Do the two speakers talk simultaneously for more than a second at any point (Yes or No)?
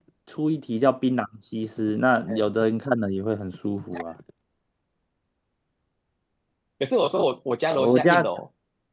No